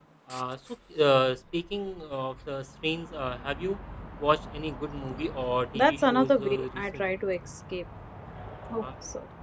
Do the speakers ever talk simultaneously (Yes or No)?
Yes